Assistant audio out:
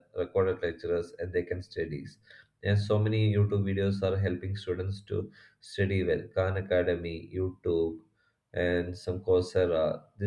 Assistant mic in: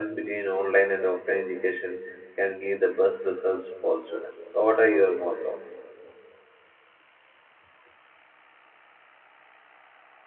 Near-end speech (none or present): present